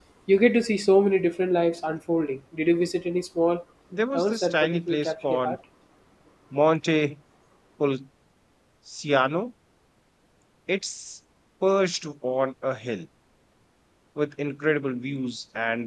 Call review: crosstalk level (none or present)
present